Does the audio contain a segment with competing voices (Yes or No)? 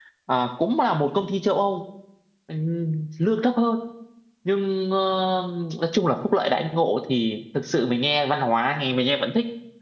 No